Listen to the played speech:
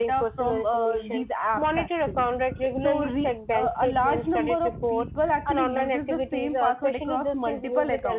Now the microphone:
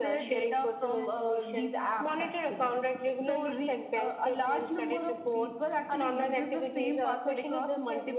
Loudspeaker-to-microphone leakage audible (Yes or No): Yes